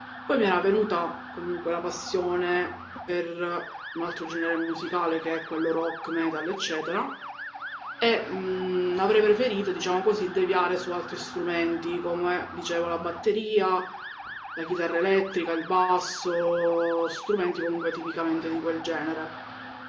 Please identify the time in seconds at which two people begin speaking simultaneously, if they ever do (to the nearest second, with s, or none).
none